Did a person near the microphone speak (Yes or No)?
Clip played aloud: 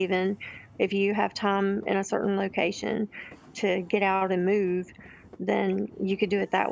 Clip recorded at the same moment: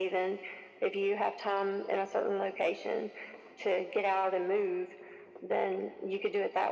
No